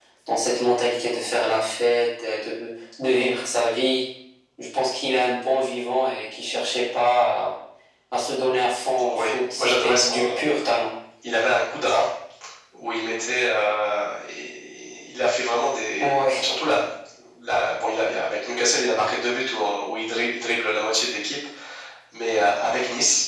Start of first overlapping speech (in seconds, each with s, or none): 9.1 s